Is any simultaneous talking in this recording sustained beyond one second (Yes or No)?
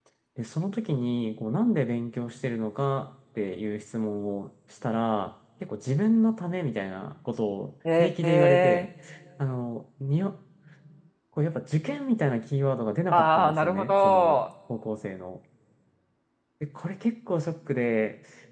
Yes